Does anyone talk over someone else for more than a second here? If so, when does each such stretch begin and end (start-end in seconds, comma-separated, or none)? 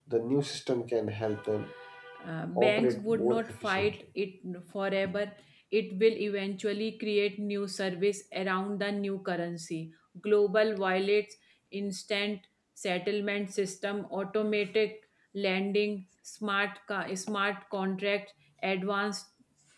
2.6-4.0